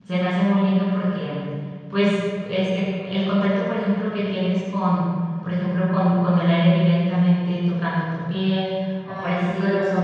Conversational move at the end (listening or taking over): listening